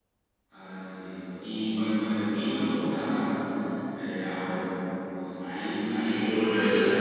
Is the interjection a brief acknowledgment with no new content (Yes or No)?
Yes